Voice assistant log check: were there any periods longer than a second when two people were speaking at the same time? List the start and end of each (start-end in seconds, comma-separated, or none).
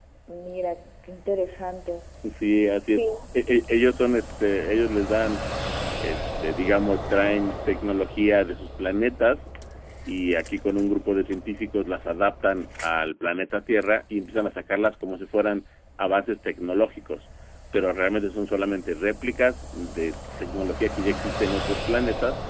none